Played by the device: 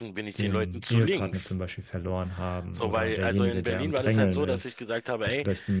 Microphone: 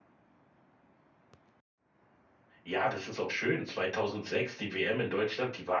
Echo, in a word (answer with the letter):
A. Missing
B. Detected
A